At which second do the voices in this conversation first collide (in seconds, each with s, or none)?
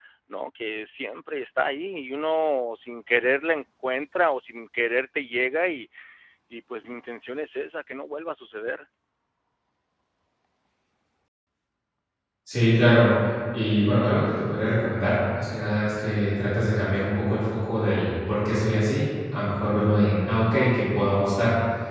none